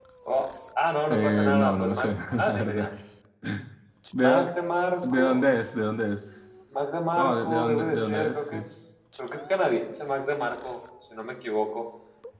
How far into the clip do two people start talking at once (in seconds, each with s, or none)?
1.1 s